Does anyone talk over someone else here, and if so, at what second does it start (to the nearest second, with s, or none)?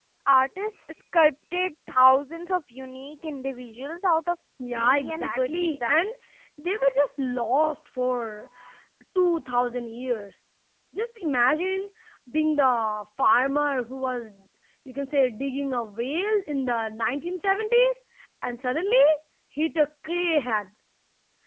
5 s